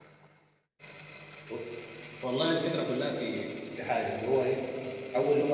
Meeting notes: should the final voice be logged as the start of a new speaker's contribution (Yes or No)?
No